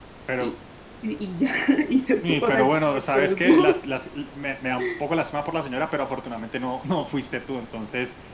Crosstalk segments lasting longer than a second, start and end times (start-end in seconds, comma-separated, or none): 2.2-3.8